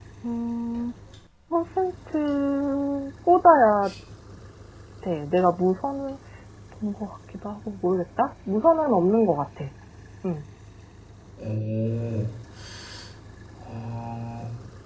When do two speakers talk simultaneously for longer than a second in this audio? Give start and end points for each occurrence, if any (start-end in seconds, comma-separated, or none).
none